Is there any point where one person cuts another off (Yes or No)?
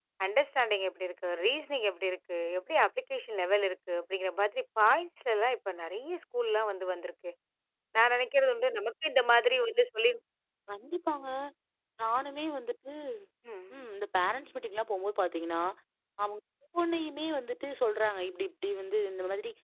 No